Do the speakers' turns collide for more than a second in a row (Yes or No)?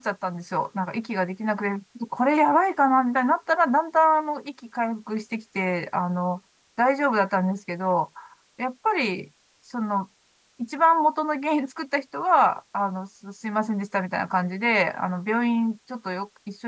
No